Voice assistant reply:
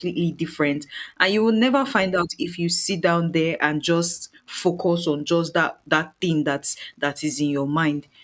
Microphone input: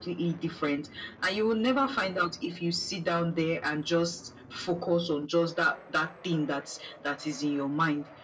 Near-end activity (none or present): none